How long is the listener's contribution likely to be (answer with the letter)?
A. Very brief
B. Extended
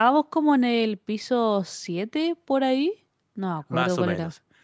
B